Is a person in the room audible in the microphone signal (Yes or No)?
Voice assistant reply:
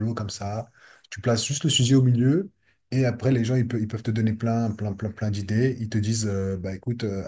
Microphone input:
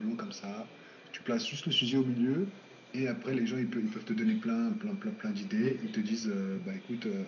Yes